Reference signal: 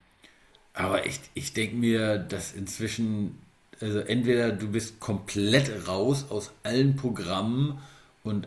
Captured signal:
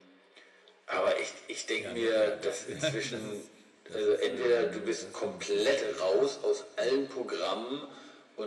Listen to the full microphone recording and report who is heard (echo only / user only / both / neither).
both